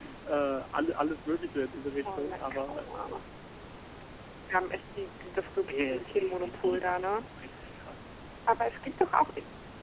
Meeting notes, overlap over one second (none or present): present